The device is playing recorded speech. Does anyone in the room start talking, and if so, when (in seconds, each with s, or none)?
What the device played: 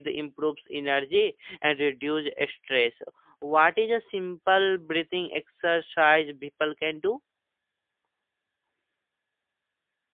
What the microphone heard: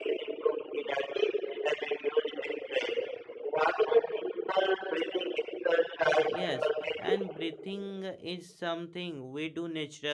6.3 s